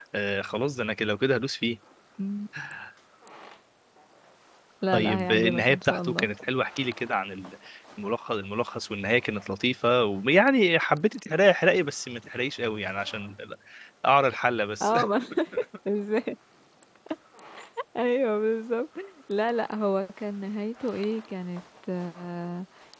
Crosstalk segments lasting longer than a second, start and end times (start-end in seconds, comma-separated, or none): 4.9-6.3